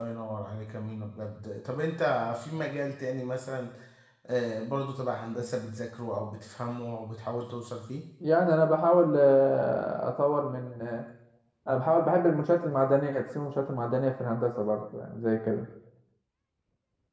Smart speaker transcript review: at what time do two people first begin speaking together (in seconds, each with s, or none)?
none